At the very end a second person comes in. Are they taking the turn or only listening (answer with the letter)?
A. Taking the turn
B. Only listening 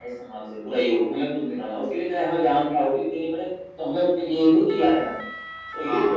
A